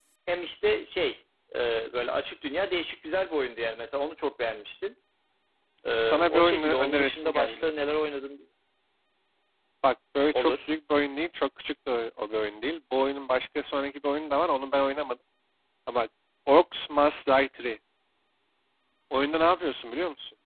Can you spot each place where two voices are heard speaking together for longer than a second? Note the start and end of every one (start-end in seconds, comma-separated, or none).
6.0-7.7